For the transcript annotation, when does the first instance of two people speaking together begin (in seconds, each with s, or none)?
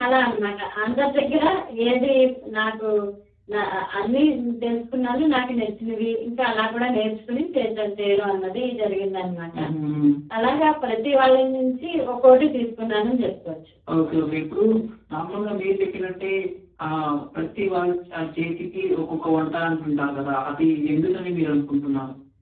none